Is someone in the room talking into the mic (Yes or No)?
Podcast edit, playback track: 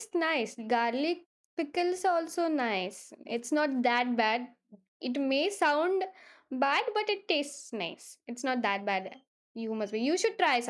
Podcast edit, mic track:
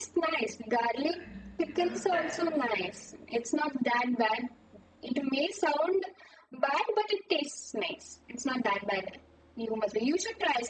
Yes